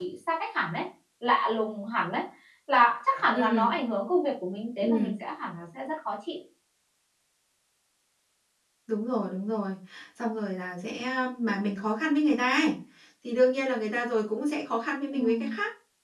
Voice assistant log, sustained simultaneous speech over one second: none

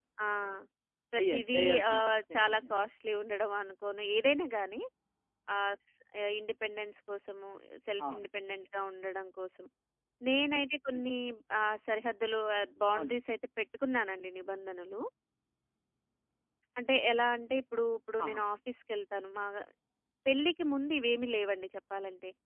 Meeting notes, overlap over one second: present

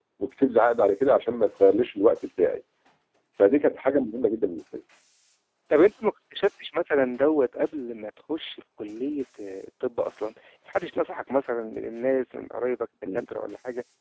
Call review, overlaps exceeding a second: none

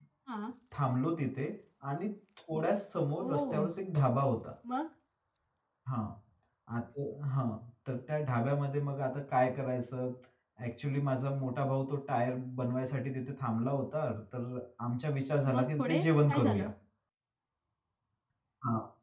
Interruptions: present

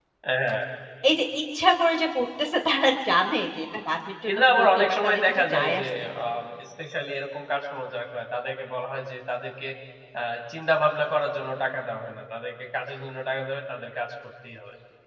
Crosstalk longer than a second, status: present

